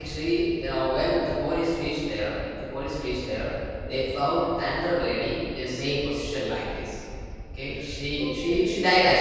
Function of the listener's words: listening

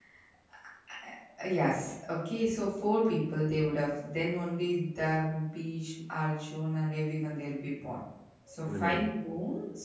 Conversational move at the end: listening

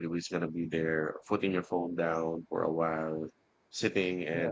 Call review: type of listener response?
listening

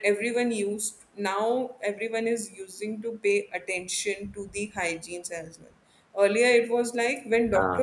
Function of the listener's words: listening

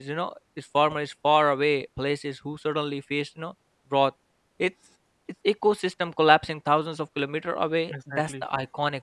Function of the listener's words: listening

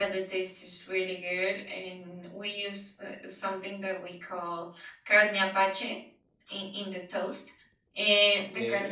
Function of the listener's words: listening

